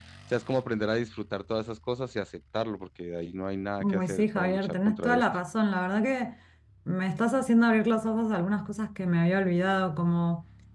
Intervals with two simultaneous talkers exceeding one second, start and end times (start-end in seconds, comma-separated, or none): 3.8-5.2